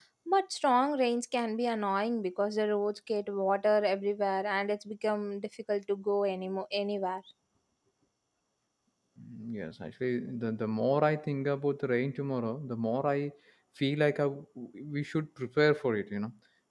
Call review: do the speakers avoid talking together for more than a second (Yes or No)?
Yes